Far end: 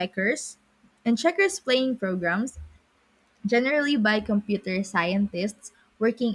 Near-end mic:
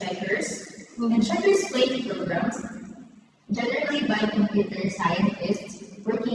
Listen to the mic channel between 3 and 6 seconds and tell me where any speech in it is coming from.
echo only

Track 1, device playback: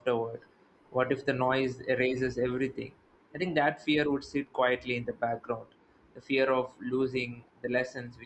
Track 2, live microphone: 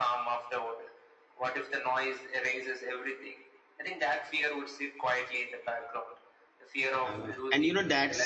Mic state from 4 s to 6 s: echo only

